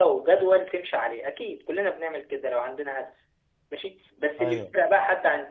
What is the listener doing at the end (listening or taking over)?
listening